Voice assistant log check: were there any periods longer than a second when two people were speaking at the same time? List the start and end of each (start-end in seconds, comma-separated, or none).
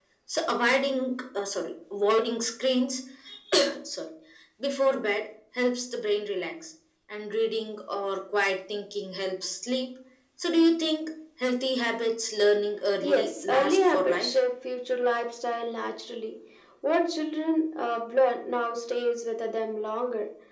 13.0-14.3